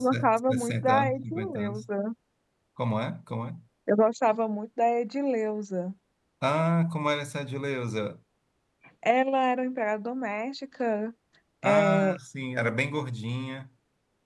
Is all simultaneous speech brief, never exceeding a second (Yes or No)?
No